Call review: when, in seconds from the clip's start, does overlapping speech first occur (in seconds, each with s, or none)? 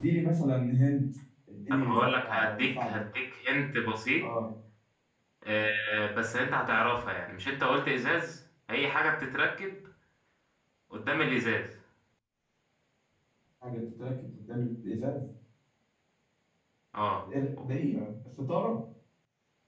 1.7 s